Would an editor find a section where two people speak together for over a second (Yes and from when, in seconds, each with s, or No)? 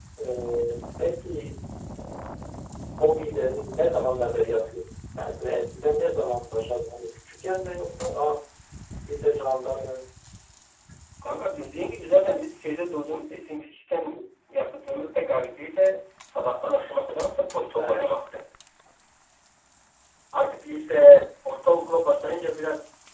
No